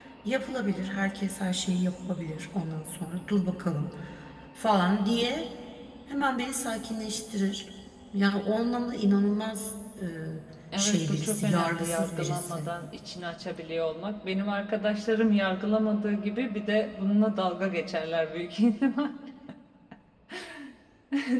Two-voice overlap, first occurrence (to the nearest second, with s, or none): 11 s